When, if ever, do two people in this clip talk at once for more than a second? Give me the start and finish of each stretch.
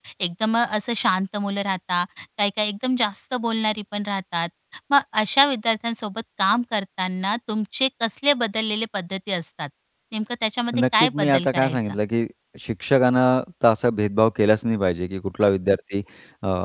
10.7-12.0

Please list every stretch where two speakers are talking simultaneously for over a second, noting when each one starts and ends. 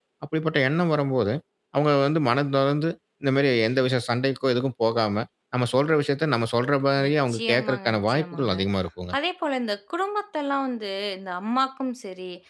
7.0-8.5

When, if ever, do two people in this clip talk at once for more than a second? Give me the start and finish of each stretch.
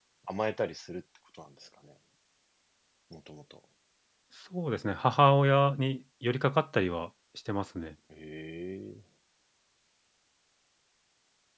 none

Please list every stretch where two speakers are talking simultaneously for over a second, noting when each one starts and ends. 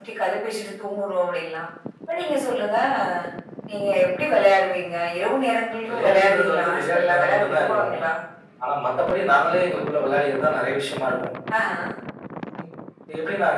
5.9-7.9

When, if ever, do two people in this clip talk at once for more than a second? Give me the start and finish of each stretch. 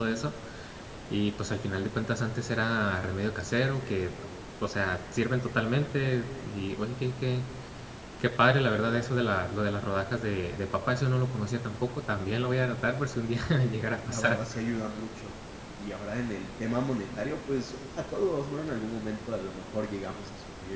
none

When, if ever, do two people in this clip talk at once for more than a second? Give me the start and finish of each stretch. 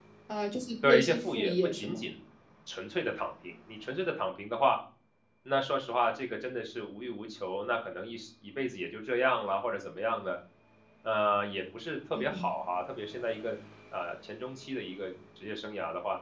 0.8-2.1

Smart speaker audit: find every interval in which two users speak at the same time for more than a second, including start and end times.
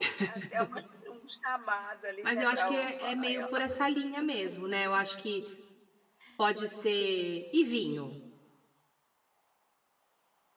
2.2-3.5

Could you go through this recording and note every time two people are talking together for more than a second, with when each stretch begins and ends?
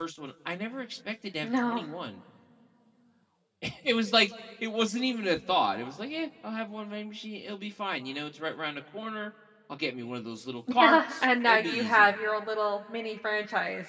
10.8-12.1

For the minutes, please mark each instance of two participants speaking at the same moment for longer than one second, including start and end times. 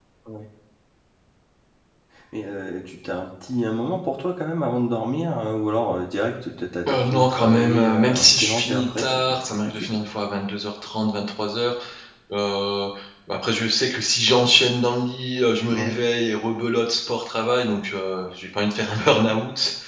6.9-9.9

